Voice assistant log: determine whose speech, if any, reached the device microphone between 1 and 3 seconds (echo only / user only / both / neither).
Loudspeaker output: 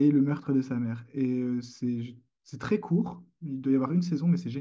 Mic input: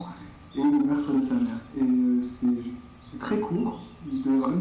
echo only